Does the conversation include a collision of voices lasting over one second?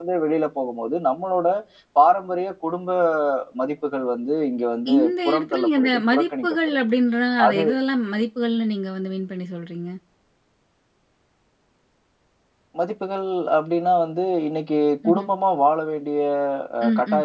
Yes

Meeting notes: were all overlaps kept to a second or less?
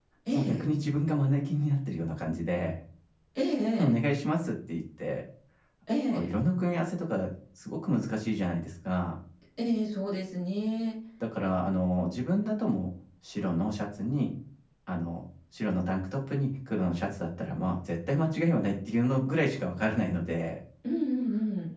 Yes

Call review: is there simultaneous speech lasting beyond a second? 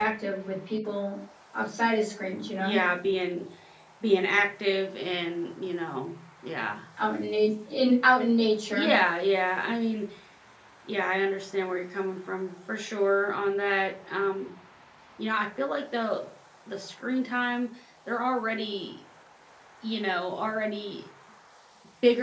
No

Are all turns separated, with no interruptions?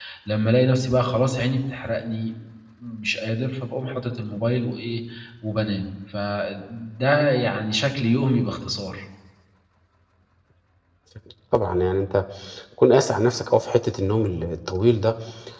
Yes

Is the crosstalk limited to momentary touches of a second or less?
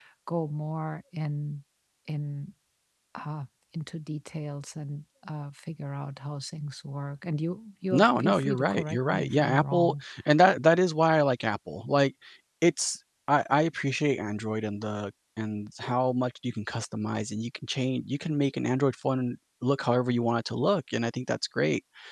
No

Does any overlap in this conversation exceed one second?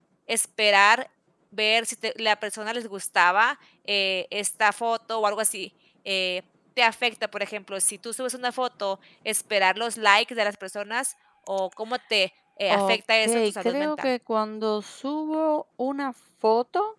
Yes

